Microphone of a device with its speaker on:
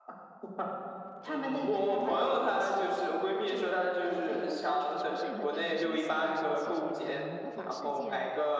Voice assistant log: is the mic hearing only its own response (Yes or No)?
No